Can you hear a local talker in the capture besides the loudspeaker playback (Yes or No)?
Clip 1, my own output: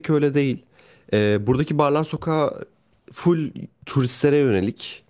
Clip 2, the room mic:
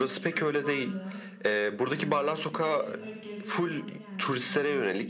Yes